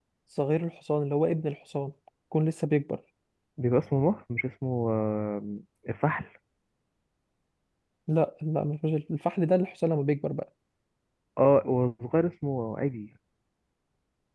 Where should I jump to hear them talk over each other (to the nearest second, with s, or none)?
none